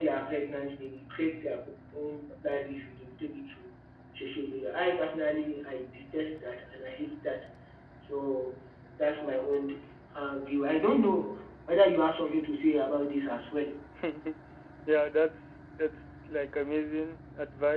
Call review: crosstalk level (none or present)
none